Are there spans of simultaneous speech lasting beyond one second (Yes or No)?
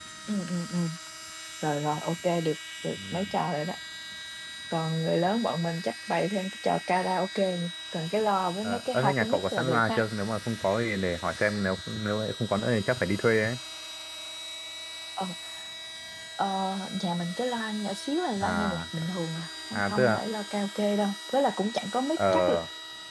Yes